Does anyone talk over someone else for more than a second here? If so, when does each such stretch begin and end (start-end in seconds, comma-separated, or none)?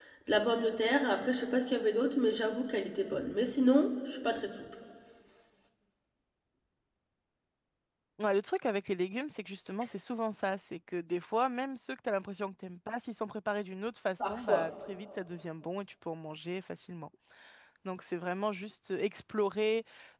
none